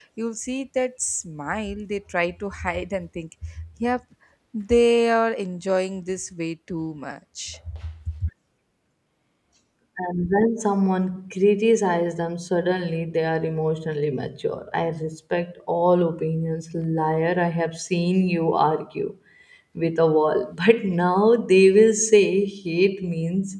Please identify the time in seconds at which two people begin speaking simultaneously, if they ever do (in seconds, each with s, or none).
none